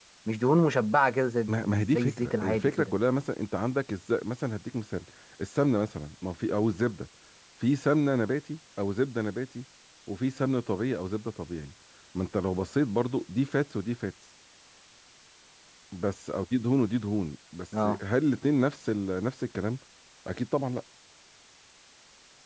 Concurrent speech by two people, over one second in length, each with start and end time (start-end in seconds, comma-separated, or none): 1.5-2.9